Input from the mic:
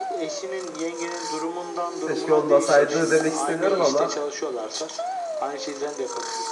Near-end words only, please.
keşke olmasaydı demek istemiyorum ama

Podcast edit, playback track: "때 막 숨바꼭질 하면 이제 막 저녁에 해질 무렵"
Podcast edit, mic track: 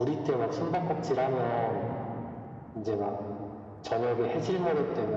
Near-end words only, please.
none

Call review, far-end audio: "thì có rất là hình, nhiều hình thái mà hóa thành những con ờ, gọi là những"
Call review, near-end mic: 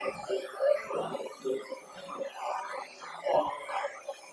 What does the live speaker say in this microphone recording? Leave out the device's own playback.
none

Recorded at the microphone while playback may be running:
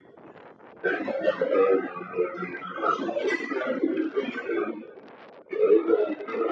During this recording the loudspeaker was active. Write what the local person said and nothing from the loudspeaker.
none

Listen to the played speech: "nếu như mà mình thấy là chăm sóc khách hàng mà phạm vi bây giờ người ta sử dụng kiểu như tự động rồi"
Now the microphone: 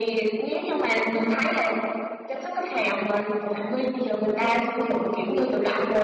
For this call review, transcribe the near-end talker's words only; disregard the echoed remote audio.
none

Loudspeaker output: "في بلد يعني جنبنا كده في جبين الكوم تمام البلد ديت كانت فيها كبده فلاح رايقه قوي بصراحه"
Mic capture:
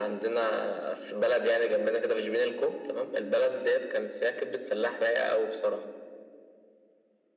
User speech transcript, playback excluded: none

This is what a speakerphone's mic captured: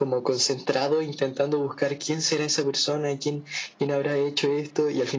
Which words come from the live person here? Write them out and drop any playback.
none

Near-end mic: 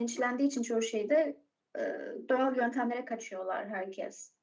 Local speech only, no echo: none

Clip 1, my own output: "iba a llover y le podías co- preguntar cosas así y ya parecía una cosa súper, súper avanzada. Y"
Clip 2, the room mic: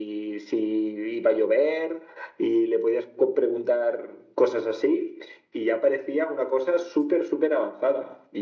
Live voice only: none

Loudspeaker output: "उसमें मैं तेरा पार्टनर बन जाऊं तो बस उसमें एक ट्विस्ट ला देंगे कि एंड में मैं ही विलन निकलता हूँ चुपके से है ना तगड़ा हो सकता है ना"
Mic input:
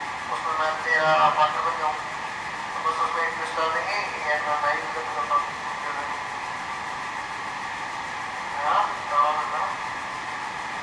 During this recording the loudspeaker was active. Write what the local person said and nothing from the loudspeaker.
none

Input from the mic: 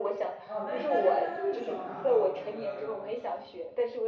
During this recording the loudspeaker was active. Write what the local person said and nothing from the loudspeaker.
啊，那应该应该就是桑拿吧，我觉得就

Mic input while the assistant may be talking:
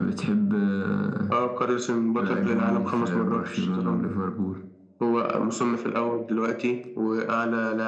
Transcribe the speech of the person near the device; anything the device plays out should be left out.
none

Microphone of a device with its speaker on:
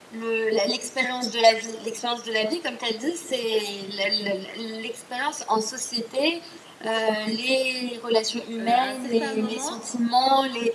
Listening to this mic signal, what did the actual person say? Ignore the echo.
euh, à un certain moment,

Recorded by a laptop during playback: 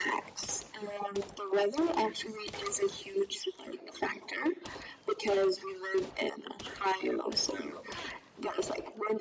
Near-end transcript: none

